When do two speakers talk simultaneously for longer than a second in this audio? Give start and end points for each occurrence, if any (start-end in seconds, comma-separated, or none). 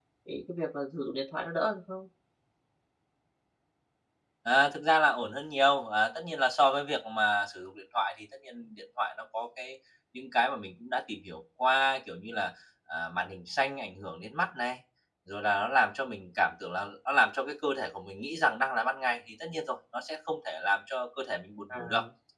none